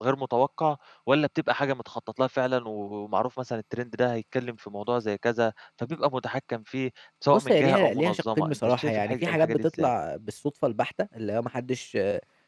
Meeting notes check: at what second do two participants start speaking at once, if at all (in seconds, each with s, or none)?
7.3 s